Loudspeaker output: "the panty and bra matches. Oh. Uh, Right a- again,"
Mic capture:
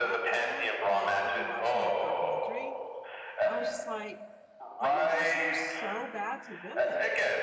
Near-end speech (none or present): present